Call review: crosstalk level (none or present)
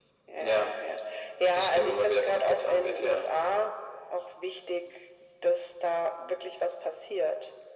present